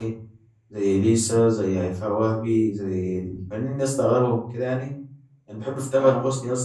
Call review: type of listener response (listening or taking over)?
listening